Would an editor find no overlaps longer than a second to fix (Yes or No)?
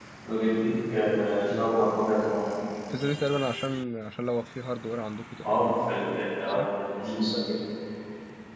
Yes